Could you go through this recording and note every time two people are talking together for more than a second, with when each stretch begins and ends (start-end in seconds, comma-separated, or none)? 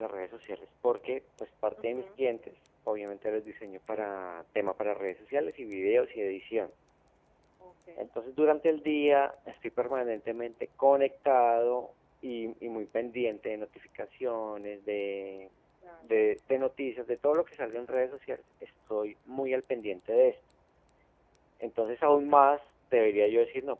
none